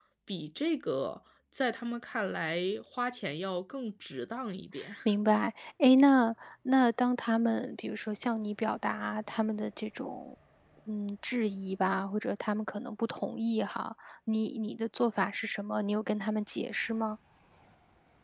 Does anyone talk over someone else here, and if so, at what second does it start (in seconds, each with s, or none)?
none